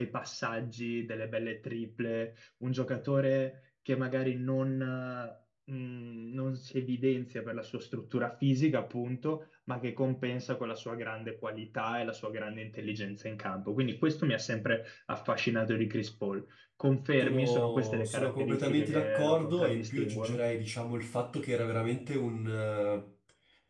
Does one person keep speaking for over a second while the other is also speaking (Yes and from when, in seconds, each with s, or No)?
Yes, from 17.2 s